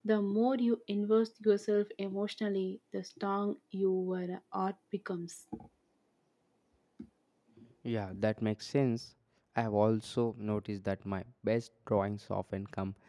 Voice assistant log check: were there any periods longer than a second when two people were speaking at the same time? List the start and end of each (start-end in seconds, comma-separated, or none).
none